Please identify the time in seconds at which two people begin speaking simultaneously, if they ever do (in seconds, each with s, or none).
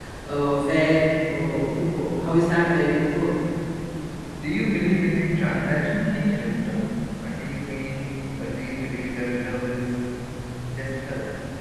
none